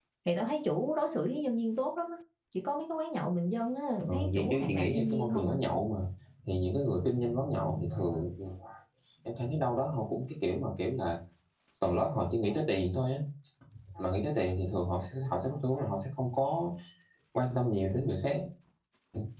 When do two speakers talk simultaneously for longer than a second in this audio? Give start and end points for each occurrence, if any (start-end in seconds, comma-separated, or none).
4.1-5.6